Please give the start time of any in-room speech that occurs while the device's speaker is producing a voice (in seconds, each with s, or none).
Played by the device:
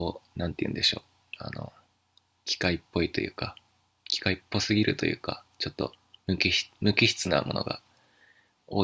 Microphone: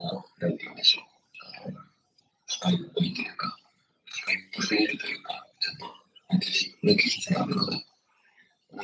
none